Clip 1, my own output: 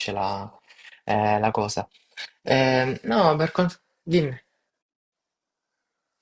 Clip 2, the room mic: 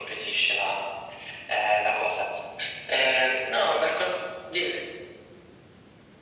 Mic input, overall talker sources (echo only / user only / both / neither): echo only